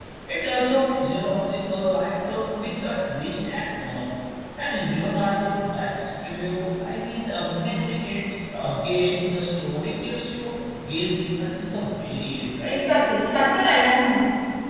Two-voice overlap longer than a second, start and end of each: none

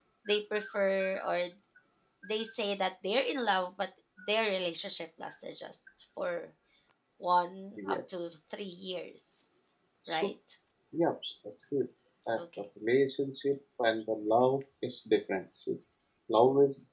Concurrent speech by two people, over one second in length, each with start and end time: none

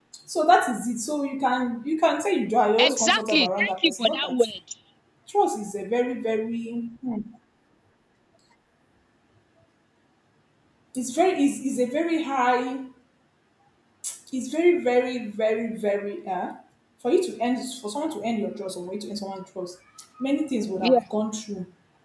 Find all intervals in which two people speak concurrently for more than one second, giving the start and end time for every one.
2.8-4.4

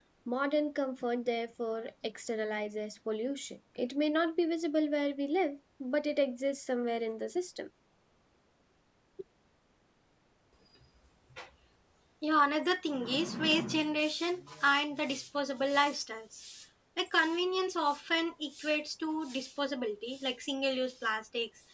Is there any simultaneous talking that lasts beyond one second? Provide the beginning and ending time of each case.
none

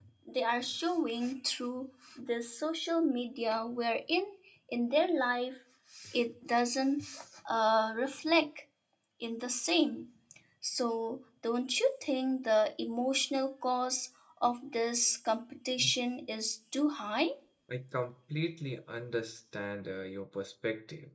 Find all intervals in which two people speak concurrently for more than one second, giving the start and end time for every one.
none

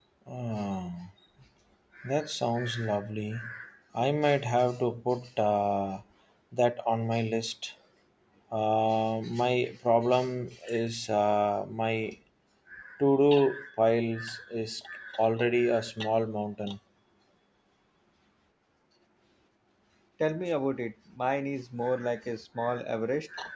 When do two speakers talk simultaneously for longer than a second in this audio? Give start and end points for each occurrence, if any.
none

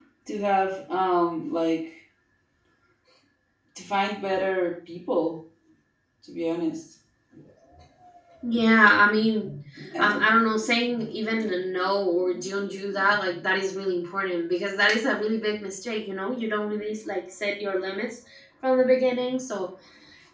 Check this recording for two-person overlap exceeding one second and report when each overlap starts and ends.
none

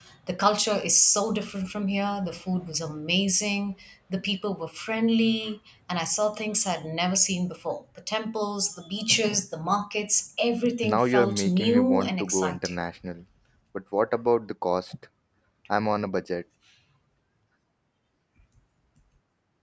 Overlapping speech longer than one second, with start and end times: 10.8-12.8

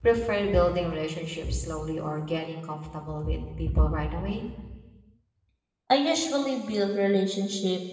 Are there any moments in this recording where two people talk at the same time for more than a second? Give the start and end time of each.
none

